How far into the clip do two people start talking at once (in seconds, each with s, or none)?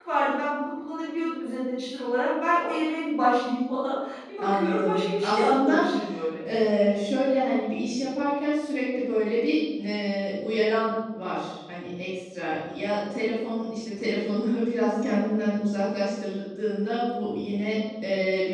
4.4 s